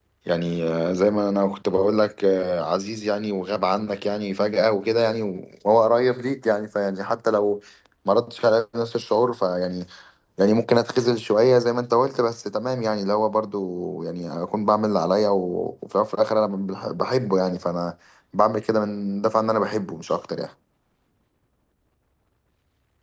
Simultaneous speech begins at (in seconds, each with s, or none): none